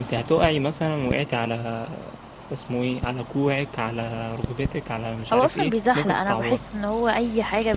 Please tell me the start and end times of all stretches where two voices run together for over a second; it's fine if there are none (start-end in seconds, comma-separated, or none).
5.3-6.6